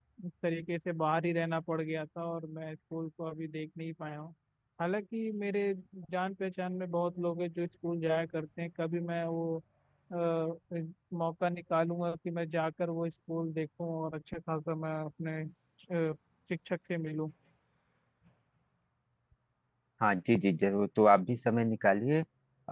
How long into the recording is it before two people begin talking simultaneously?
none

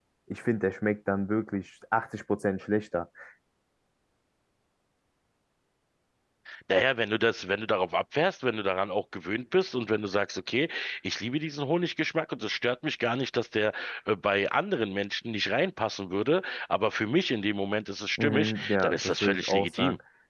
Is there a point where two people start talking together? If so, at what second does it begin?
18 s

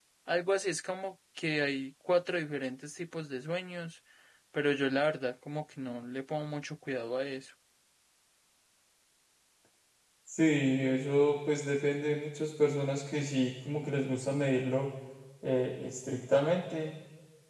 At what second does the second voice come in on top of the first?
none

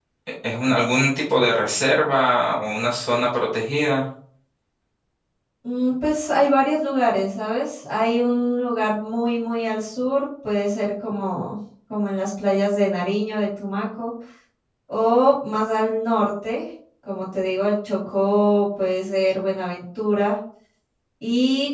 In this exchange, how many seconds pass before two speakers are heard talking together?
none

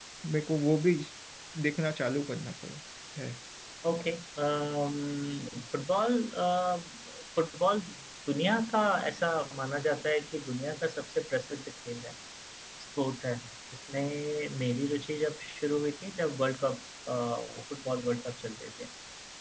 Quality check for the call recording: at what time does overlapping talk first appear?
none

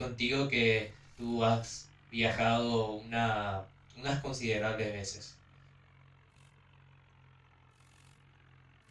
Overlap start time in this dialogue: none

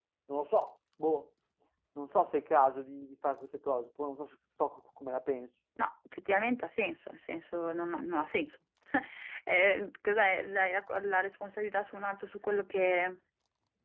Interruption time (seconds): none

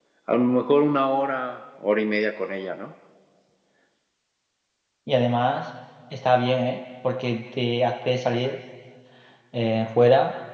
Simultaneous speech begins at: none

